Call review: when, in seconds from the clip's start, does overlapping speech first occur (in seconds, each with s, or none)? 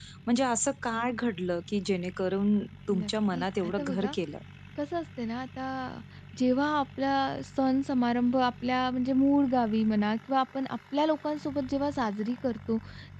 2.9 s